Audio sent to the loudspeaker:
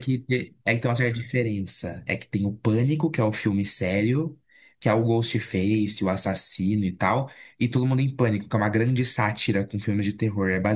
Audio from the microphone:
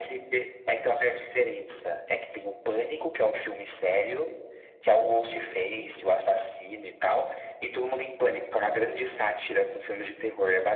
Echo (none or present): present